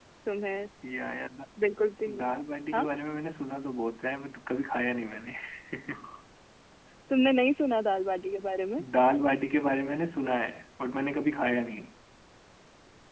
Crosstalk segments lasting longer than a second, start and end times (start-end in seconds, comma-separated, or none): none